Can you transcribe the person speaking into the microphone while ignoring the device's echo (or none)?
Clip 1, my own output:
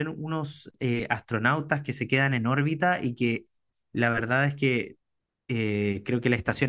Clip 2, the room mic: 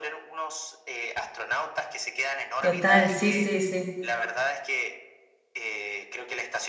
Total, sí, sí, sí.